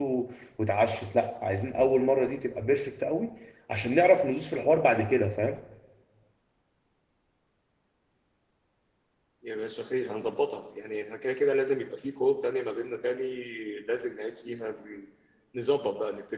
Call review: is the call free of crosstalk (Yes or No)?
Yes